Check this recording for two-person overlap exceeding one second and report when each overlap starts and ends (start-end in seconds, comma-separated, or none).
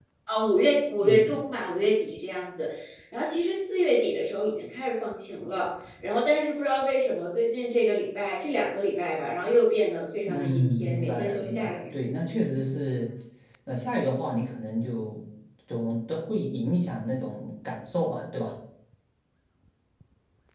10.3-11.8